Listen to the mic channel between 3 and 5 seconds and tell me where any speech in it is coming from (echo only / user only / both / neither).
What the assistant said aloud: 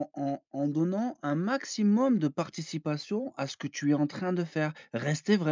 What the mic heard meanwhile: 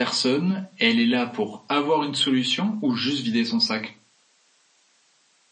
user only